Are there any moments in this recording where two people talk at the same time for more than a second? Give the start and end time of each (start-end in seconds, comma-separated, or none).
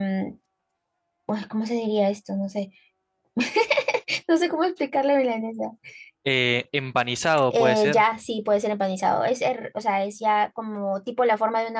none